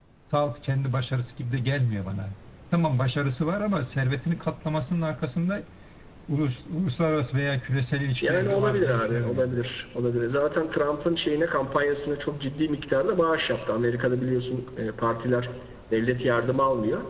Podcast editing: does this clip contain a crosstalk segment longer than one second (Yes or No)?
Yes